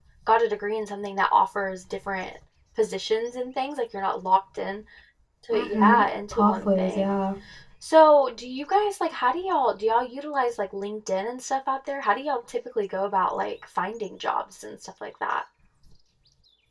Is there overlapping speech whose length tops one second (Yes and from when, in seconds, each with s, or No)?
Yes, from 5.5 s